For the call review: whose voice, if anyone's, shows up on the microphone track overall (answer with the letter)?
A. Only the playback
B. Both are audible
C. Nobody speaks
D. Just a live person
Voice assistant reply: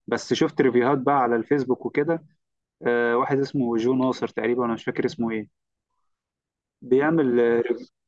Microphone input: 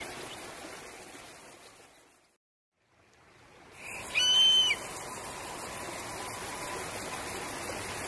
C